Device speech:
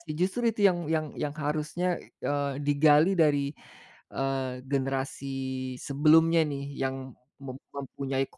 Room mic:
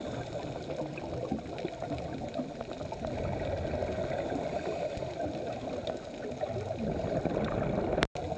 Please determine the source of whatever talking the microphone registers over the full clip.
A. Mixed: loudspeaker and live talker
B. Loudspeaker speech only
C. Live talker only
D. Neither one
D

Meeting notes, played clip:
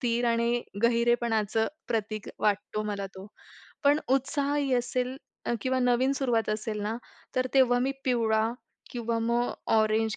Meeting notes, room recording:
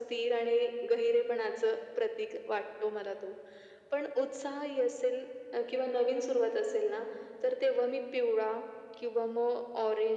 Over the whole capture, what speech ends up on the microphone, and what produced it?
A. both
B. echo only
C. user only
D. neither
B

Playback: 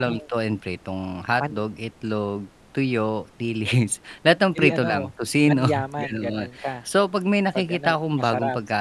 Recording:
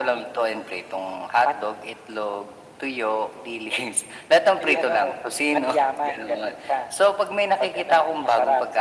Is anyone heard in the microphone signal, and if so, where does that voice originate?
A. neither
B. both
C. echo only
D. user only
C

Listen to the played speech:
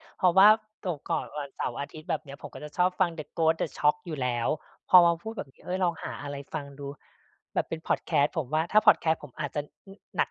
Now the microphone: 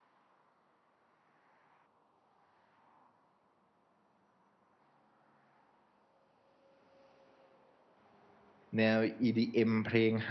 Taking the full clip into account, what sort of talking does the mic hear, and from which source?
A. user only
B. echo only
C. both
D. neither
A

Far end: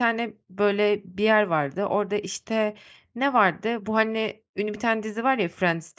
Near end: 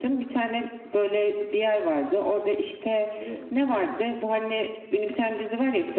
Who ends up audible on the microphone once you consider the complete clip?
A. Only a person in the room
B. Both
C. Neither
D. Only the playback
B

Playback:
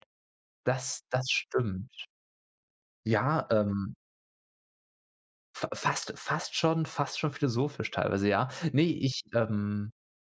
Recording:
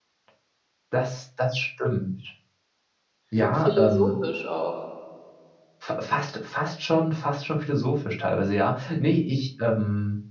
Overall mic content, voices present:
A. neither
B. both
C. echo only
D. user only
B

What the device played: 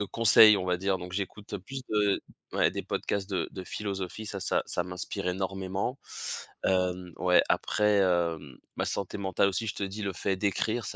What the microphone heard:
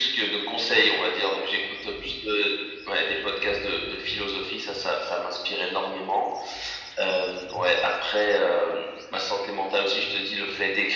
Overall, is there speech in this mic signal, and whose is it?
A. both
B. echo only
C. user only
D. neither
B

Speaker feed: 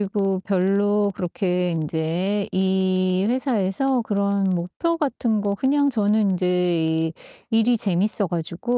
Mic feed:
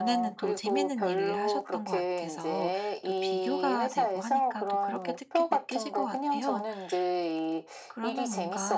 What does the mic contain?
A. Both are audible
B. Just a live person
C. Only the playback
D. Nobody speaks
A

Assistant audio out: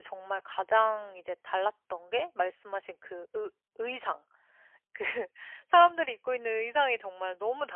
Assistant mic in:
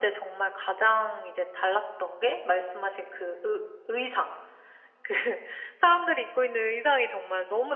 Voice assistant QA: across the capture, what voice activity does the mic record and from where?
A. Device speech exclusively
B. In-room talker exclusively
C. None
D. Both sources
A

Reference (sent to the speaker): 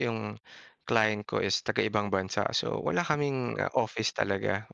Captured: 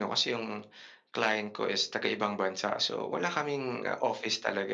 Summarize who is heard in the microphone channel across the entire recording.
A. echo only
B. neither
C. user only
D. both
A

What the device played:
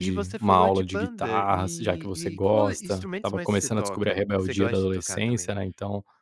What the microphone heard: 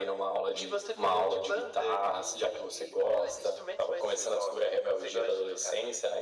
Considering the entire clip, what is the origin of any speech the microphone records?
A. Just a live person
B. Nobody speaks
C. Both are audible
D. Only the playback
D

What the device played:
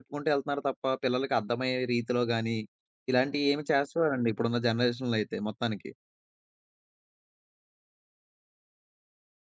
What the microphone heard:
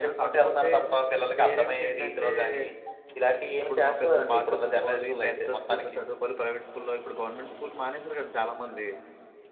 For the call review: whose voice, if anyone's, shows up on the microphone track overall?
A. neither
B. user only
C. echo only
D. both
D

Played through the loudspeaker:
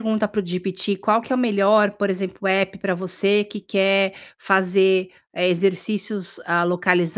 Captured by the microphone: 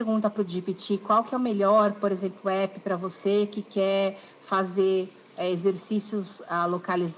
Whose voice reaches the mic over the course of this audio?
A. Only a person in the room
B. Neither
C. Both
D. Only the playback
D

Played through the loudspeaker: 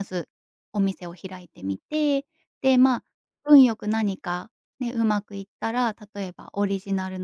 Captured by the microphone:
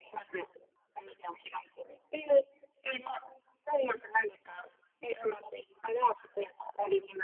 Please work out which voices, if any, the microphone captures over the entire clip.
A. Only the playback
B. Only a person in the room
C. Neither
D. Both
A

